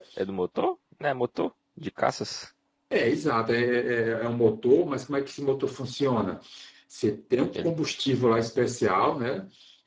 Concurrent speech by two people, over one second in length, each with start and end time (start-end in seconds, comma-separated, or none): none